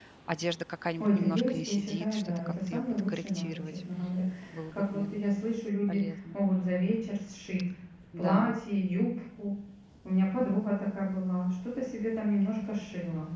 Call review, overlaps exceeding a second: present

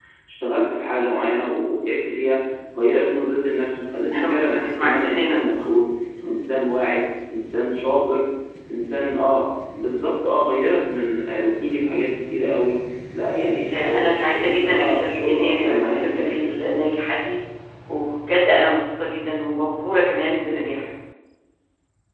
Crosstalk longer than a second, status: present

